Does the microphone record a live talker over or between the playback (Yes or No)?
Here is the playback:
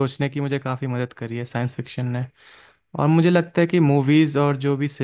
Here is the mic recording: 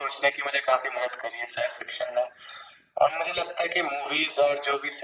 No